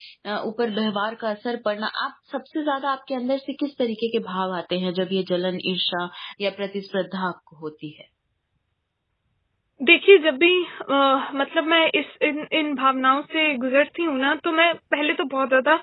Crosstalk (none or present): none